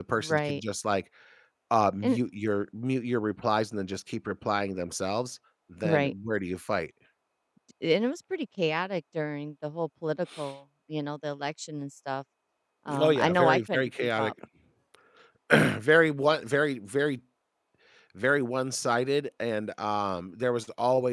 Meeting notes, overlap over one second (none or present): present